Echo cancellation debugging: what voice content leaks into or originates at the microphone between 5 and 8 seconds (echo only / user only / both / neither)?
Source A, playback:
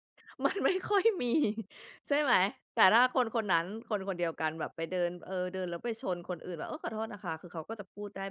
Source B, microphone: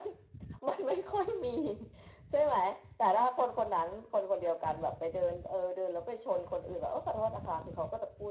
echo only